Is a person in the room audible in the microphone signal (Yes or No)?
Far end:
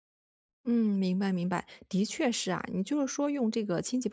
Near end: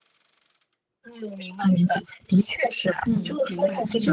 Yes